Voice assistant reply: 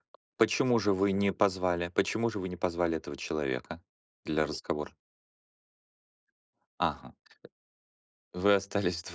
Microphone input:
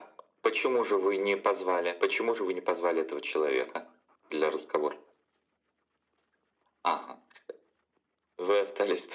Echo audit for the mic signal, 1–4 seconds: echo only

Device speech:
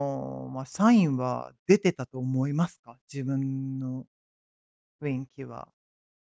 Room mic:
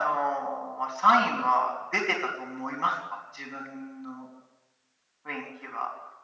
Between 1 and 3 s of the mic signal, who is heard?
echo only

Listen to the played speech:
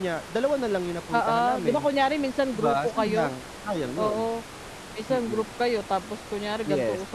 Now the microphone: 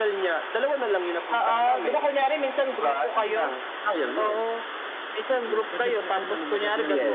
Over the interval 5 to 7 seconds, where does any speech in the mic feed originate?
both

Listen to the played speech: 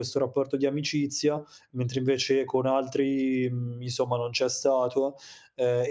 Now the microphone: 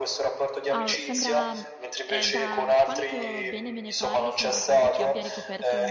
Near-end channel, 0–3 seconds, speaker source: both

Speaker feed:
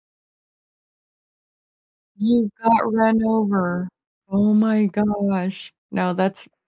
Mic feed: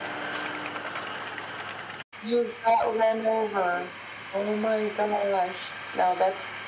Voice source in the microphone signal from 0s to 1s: neither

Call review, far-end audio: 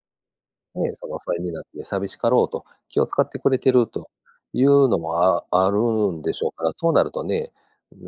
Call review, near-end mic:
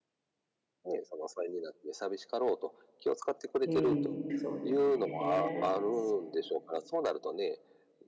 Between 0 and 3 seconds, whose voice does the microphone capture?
echo only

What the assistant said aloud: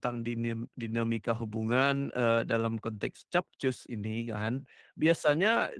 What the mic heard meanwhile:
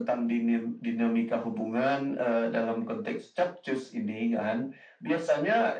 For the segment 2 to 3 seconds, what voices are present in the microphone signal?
echo only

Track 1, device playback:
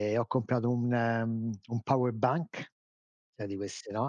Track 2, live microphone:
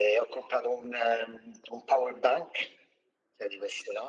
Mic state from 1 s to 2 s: echo only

